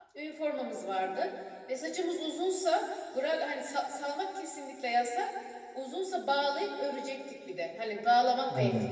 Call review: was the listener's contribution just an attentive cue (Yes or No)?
Yes